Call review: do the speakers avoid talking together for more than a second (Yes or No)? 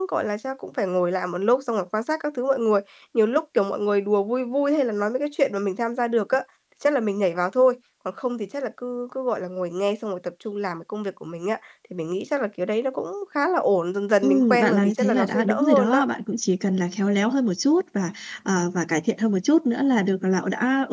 No